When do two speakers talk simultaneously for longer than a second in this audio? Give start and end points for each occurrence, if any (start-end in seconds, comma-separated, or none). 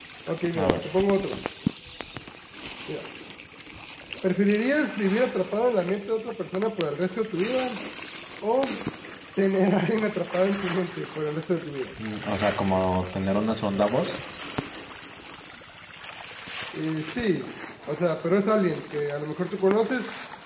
none